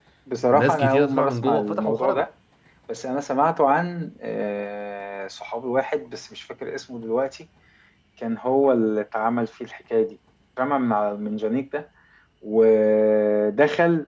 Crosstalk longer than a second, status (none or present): present